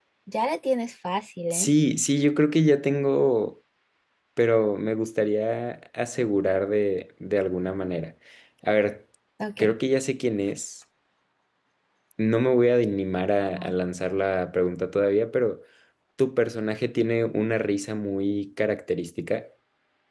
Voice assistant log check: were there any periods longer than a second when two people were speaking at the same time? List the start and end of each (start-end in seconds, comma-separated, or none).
none